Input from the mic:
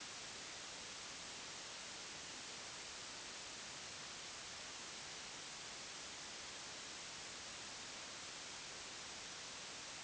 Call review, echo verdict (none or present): none